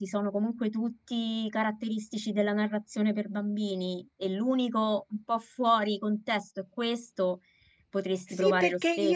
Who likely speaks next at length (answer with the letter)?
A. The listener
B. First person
A